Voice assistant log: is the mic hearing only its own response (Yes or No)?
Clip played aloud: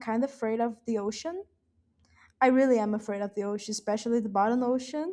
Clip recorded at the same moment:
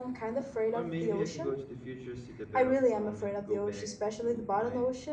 No